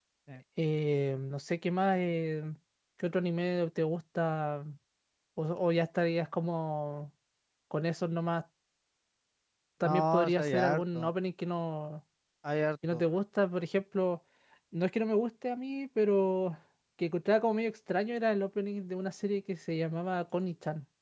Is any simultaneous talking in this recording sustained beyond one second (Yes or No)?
Yes